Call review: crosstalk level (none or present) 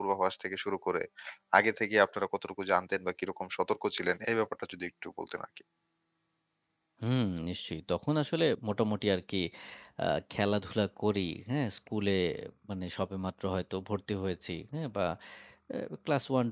none